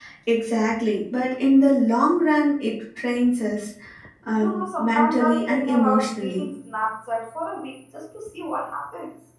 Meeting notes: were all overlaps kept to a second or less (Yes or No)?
No